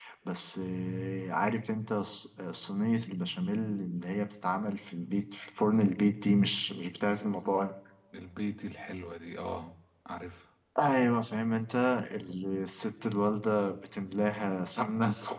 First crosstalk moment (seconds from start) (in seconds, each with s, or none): none